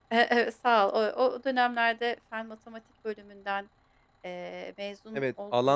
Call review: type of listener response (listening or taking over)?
taking over